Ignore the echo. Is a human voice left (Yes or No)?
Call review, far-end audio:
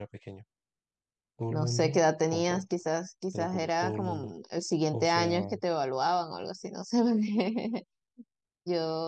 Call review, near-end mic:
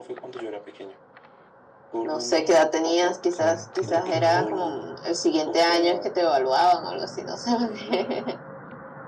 Yes